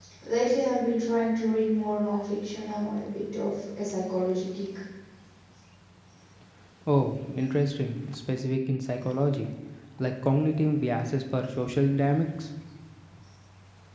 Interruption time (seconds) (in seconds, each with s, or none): none